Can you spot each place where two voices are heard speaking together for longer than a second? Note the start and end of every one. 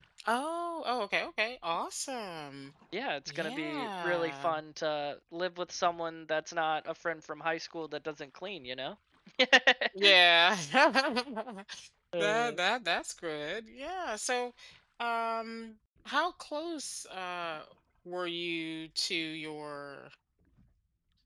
3.3-4.5

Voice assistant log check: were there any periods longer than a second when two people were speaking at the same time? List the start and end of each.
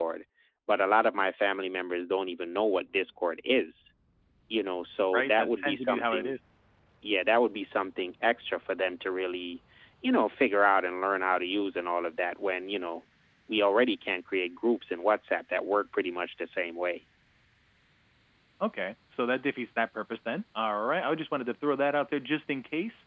5.1-6.3

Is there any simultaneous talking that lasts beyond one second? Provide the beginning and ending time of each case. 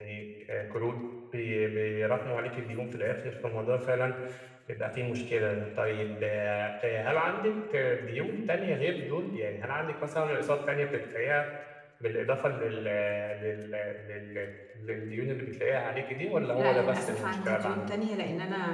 16.5-17.9

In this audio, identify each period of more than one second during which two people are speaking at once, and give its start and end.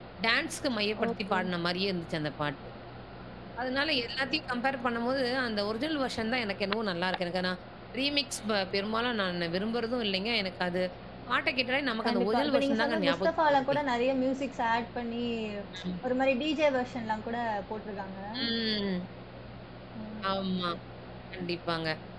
12.1-13.8

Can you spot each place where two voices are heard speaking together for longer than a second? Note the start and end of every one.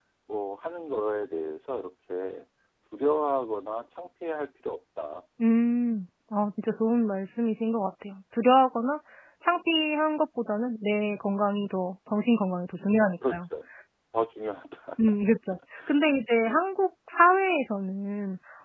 none

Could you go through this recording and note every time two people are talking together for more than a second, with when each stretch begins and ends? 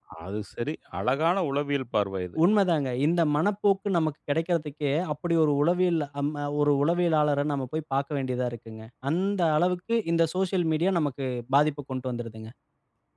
none

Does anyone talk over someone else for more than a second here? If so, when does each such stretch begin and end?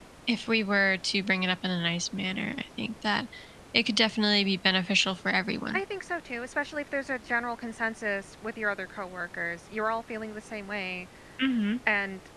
none

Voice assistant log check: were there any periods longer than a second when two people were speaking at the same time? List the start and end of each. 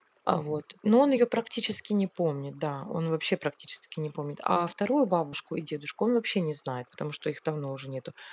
none

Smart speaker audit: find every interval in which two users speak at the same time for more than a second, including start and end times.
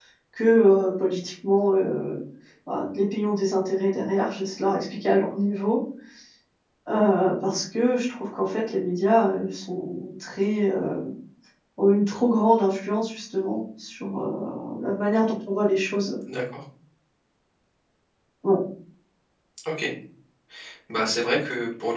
none

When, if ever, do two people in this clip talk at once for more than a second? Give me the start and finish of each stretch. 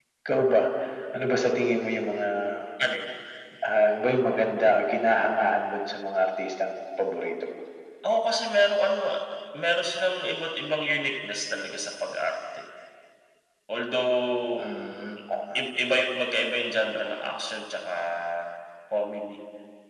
none

